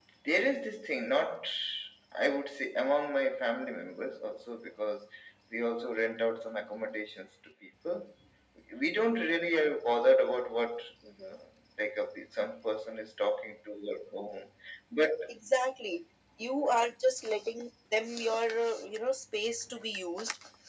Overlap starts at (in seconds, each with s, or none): none